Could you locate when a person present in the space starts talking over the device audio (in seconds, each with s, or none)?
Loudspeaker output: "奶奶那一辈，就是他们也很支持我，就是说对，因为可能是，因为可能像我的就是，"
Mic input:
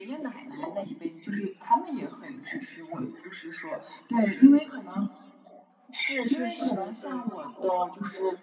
6.2 s